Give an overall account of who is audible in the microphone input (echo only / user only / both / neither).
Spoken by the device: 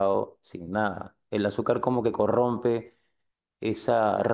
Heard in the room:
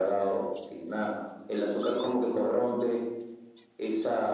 echo only